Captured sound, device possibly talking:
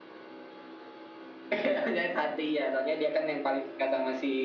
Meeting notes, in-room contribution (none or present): none